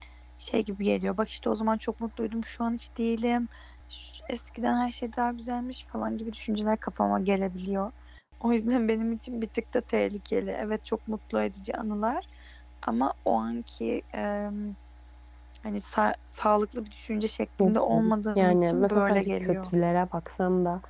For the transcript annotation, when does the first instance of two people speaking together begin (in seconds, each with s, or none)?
17.6 s